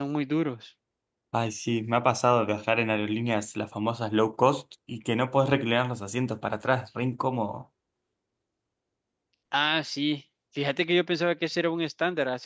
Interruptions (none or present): none